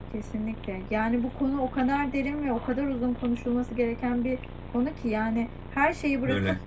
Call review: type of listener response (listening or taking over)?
listening